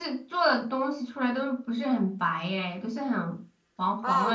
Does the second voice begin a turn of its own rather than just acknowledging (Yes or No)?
Yes